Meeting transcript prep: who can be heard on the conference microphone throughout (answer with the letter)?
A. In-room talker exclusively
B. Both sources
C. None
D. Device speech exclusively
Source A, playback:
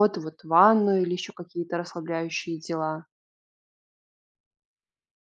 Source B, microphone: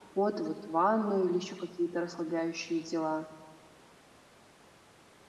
D